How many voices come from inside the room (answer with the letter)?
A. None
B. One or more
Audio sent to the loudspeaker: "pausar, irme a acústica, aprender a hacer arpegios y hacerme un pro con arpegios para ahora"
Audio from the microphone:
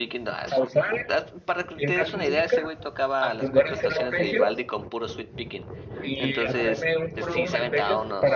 B